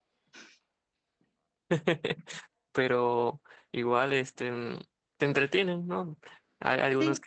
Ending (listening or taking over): listening